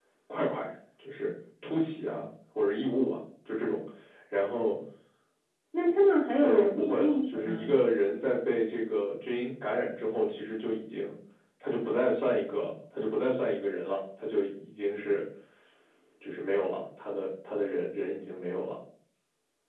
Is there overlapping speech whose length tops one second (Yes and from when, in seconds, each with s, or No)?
Yes, from 6.4 s